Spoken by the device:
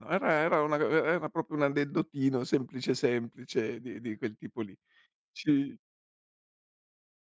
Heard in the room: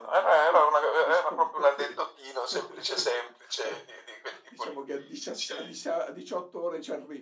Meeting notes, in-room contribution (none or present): present